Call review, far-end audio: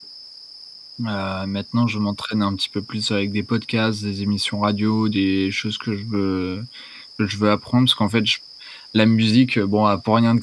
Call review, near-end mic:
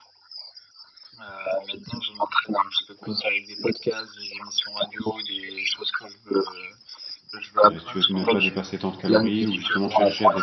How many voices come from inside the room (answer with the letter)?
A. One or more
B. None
A